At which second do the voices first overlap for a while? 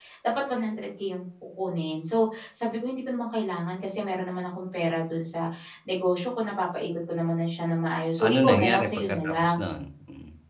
8.2 s

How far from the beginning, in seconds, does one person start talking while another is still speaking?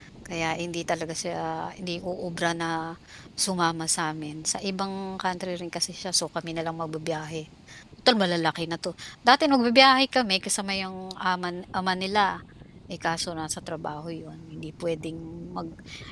none

